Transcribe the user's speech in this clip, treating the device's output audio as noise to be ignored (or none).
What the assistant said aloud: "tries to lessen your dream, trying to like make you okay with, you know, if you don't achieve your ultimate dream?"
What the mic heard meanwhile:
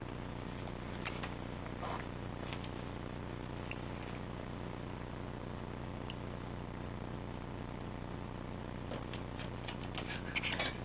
none